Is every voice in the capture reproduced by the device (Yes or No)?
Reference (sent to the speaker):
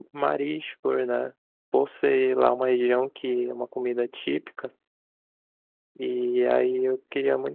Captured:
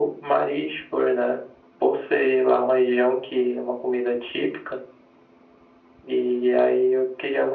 Yes